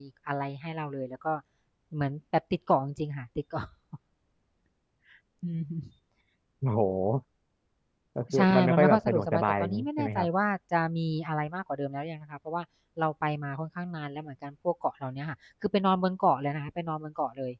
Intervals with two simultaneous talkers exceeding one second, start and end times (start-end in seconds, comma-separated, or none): 8.4-10.3